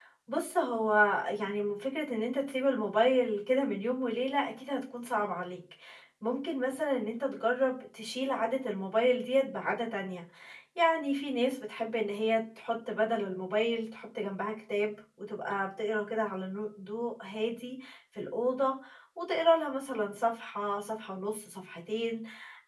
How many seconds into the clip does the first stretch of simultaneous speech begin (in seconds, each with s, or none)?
none